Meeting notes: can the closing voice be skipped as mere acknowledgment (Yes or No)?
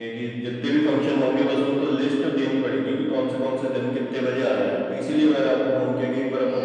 No